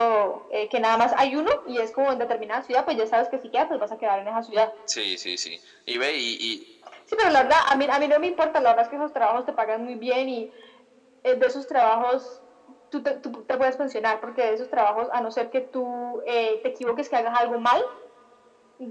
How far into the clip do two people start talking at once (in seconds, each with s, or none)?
none